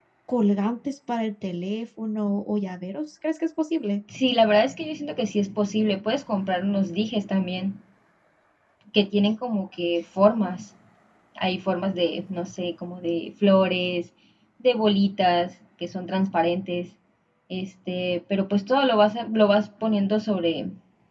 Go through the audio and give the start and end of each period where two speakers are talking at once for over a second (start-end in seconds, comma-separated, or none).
none